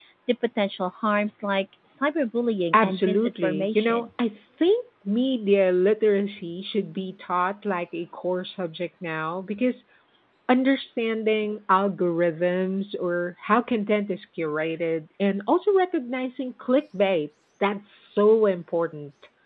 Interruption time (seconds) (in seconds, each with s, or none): 2.7 s